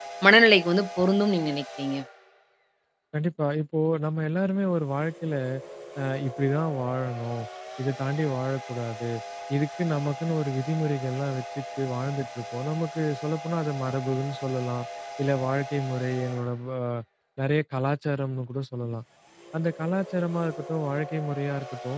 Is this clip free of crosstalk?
Yes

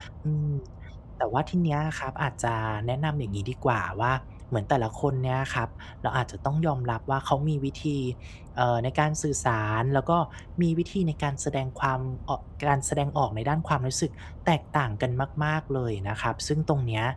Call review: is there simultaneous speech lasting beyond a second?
No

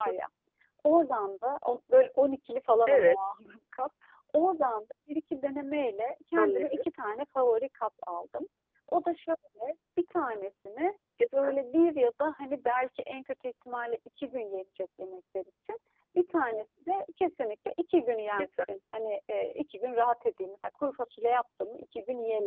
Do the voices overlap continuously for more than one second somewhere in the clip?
No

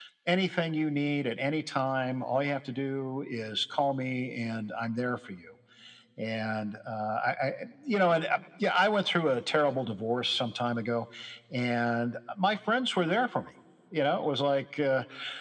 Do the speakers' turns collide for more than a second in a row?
No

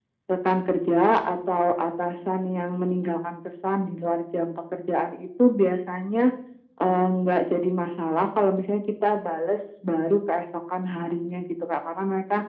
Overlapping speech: No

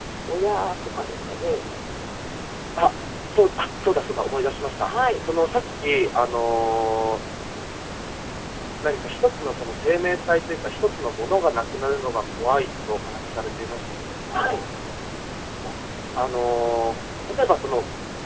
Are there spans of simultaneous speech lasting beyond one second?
No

